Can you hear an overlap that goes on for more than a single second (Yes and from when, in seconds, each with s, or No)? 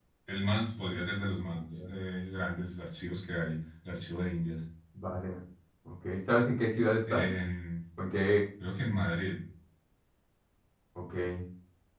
No